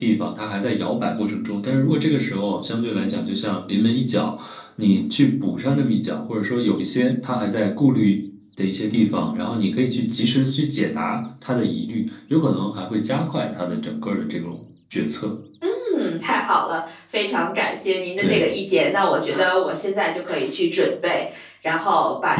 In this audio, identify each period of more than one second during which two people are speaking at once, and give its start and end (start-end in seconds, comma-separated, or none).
none